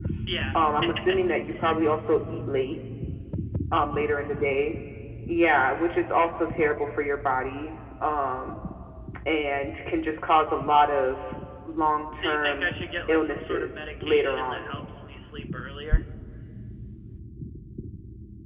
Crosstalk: present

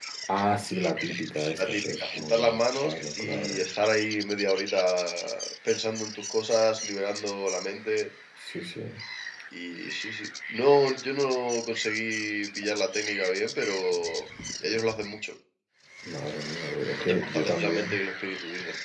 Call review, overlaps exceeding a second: present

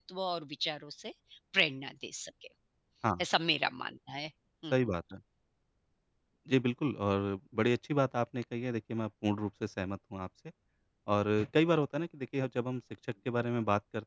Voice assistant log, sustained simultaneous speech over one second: none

